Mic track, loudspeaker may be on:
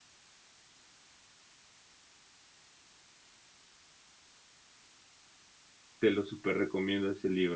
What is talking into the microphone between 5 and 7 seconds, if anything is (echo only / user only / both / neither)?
user only